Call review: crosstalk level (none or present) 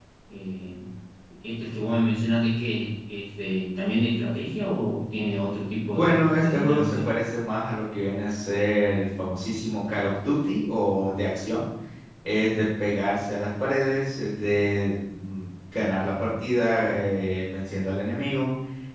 present